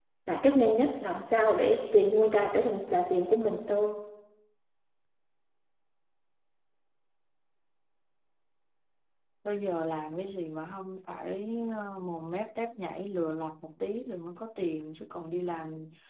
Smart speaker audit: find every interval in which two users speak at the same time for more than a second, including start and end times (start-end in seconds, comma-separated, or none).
none